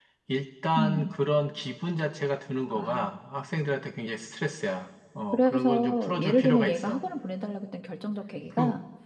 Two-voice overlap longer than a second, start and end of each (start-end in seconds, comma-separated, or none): 5.3-7.0